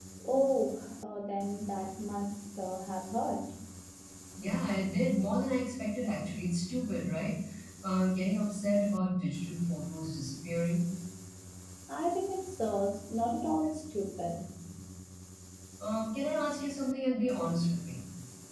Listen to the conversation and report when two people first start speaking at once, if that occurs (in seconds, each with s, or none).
none